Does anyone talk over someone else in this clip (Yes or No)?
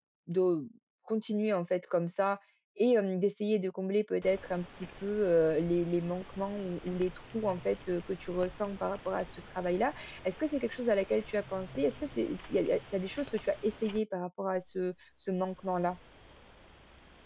No